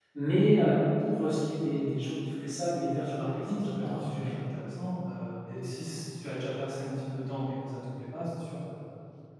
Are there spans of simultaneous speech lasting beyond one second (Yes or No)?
Yes